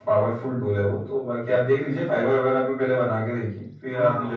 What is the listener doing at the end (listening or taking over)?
taking over